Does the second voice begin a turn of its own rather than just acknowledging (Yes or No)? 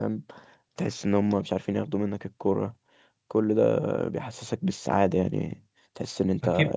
Yes